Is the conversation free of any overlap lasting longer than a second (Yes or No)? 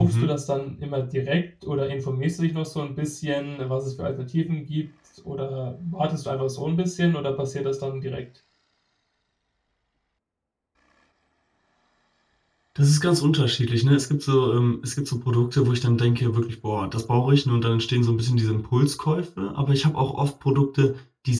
Yes